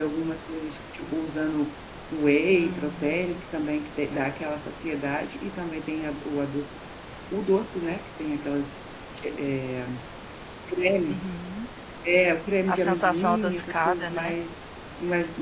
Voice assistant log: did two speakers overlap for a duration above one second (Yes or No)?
Yes